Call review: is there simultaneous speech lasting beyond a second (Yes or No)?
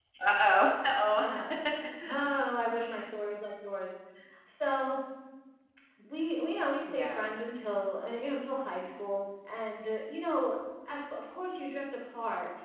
No